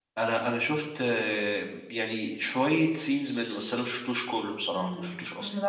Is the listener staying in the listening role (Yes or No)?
No